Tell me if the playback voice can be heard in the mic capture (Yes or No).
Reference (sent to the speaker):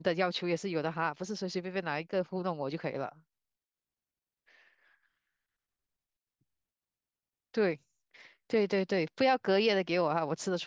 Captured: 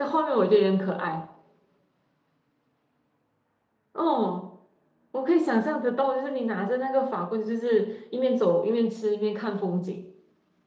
No